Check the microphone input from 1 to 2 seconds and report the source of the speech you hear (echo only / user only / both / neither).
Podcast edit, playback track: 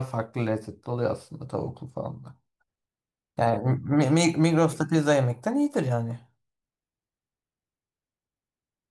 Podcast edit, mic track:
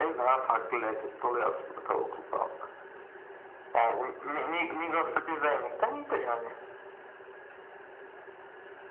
echo only